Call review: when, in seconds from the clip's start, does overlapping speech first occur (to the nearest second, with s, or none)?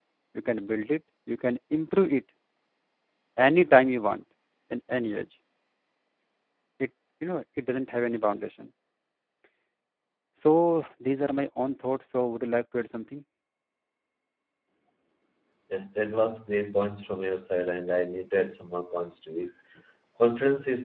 none